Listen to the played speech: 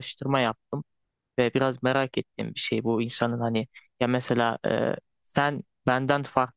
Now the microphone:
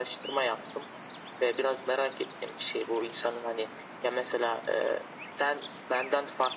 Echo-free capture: No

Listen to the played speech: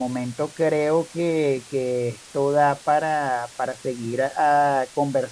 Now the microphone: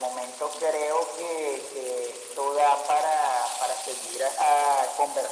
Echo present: Yes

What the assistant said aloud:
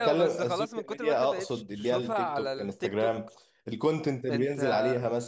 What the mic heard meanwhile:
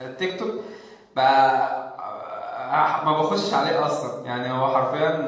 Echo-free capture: Yes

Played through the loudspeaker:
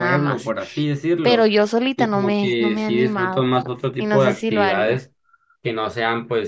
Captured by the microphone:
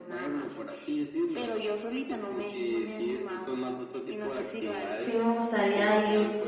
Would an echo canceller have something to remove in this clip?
Yes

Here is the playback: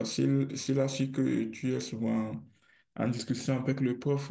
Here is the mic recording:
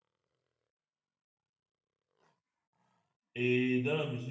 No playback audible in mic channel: Yes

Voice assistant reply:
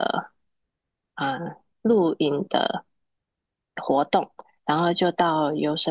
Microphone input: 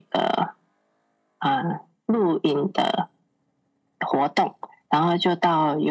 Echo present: Yes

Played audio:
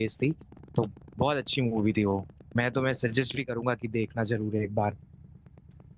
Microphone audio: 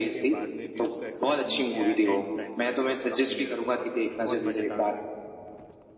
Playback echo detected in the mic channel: Yes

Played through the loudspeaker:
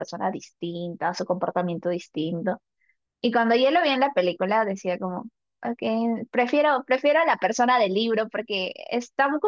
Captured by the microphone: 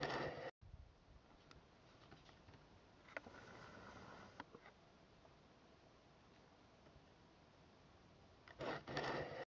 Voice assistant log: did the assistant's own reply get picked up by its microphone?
No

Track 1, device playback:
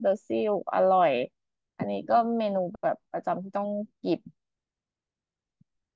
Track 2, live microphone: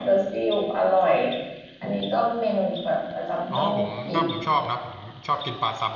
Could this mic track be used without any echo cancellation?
No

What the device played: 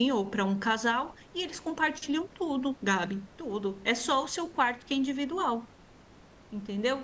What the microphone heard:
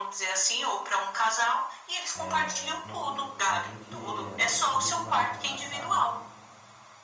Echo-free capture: No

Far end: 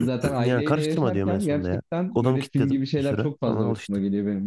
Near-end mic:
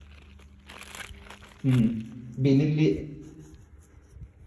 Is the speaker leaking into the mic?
No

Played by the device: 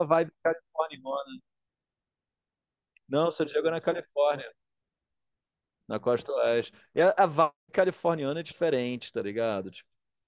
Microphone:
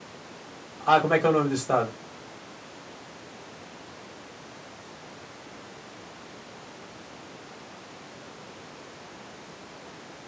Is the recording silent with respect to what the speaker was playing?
Yes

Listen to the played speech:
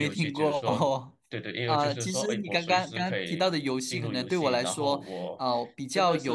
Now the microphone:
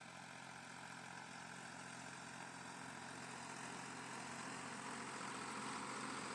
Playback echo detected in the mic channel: No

